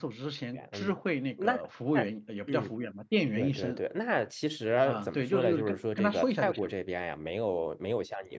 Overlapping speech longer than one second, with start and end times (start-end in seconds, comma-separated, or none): 4.8-6.7